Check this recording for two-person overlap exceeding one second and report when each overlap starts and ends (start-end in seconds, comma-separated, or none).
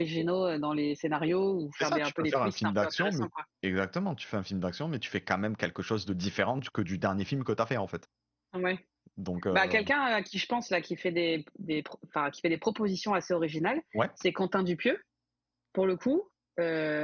1.8-3.3